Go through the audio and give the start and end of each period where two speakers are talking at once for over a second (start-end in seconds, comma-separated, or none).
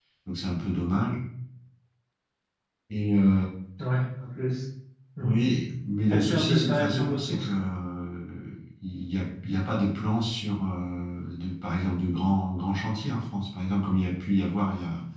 6.1-7.7